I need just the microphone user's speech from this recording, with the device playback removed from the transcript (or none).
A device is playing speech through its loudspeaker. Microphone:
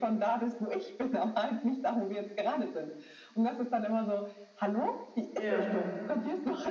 Ja.